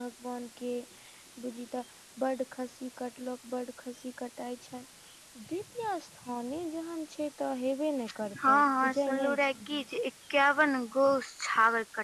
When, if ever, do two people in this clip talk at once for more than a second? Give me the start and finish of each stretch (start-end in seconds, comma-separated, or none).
8.4-9.8